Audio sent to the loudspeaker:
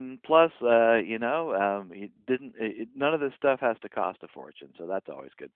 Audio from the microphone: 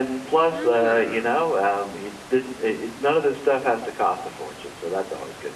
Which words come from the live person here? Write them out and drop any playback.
Oh,

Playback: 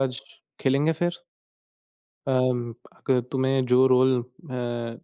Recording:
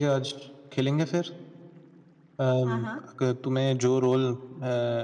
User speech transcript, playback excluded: हाँ, हाँ।

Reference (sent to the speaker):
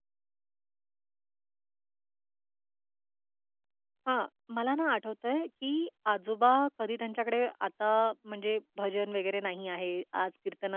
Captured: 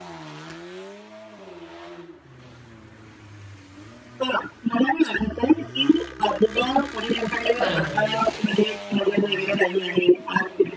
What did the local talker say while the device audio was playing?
बरोबर आहे.

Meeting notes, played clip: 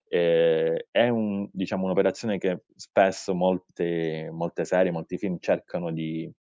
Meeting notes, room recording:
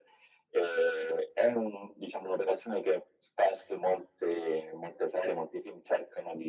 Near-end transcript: none

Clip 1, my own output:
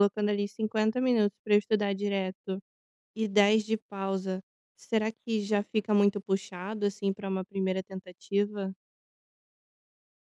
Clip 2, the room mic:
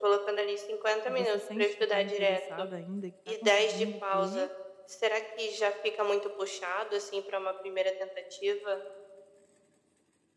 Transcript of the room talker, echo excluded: e você sente que está interessada ainda e que está conseguindo fluir,

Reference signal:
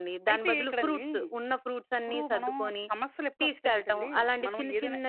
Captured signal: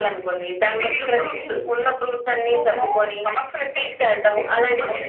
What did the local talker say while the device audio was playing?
none

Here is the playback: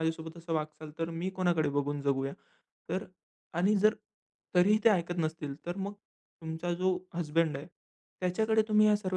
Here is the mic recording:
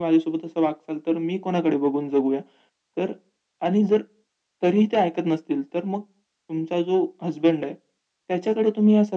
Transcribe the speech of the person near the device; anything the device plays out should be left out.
none

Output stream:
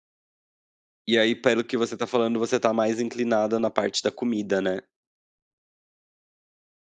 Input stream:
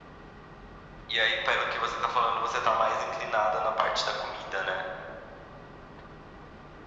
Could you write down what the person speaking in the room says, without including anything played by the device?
none

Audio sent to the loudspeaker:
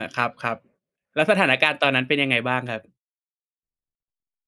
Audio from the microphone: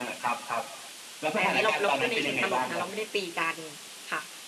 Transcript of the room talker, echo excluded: แต่อันนี้เราเราพูดในเชิงตลกนะเราไม่ได้ตีกันค่ะ

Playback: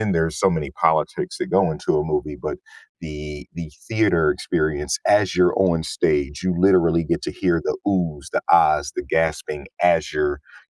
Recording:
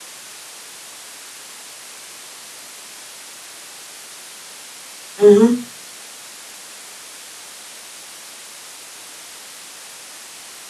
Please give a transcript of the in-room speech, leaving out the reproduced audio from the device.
hmm

